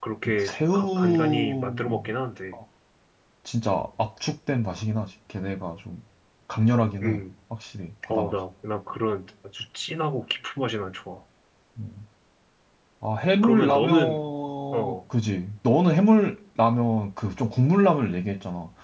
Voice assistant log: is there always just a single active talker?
No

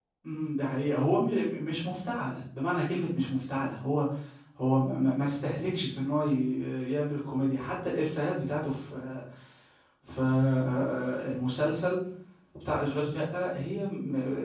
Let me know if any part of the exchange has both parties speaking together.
No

